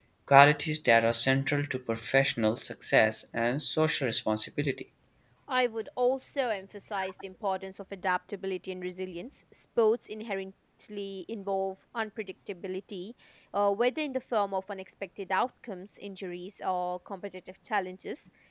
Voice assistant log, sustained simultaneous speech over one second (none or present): none